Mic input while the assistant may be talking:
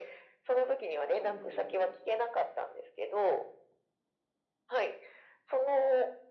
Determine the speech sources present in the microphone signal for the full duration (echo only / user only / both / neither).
both